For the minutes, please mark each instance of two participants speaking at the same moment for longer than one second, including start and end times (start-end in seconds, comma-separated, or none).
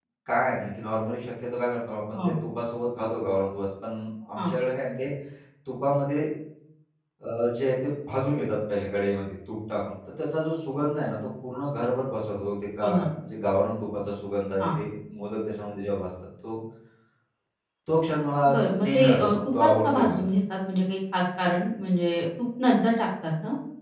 18.5-20.3